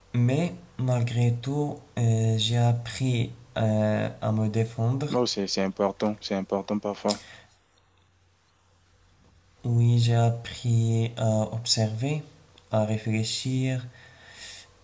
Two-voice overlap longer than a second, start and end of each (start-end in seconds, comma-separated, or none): none